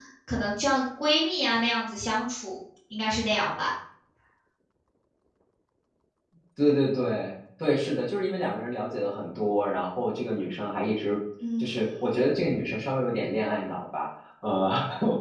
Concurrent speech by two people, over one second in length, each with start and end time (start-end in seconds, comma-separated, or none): none